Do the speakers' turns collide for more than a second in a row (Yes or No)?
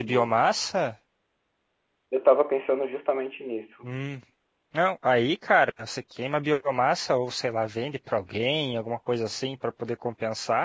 No